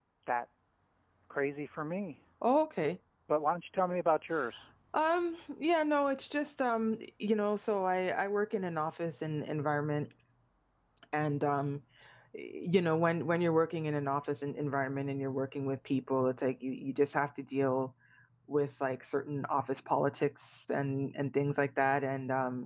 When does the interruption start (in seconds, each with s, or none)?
none